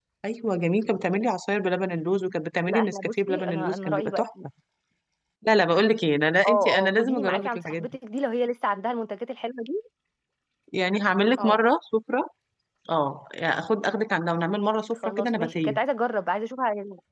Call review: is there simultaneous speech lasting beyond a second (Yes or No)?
Yes